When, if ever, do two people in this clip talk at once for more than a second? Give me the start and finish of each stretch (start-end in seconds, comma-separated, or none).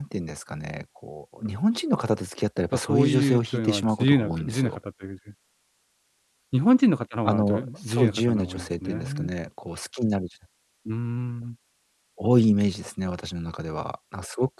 2.7-4.8, 7.2-9.3